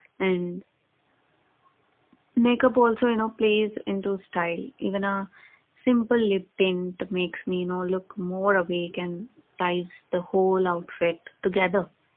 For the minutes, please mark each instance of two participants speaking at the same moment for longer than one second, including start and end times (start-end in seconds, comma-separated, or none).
none